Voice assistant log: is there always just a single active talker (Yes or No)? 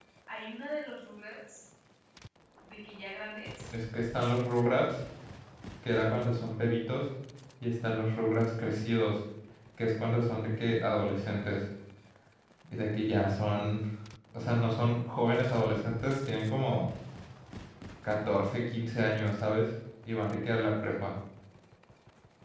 Yes